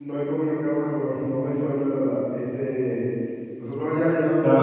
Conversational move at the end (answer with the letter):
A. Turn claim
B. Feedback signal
B